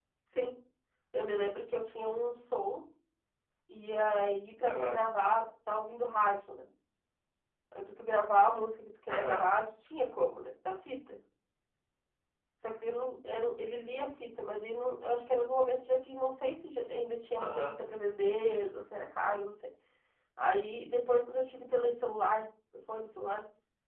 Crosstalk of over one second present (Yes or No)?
No